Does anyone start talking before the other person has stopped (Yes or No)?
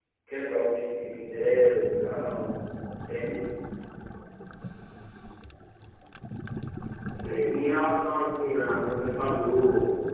No